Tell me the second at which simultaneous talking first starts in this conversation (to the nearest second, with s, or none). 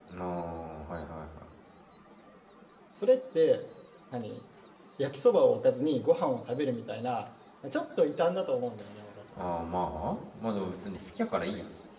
none